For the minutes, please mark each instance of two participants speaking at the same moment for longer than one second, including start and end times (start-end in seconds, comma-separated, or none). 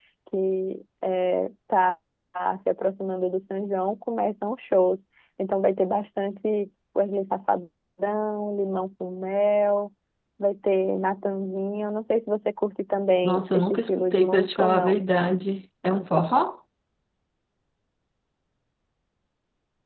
13.2-15.0